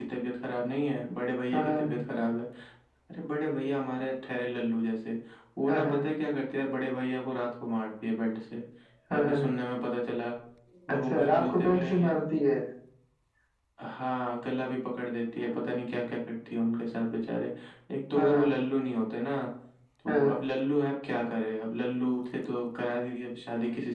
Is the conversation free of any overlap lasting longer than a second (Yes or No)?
No